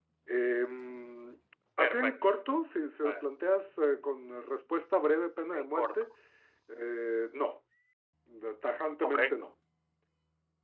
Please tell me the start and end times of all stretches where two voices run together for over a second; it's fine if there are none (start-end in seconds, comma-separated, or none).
none